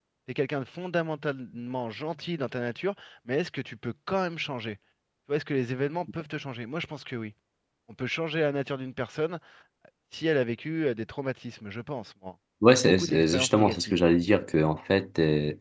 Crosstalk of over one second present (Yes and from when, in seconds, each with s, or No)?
Yes, from 12.6 s